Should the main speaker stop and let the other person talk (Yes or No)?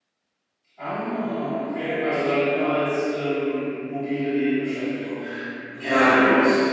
Yes